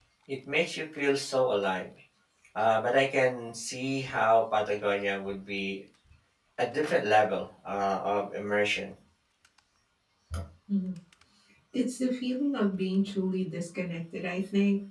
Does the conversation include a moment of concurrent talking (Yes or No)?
No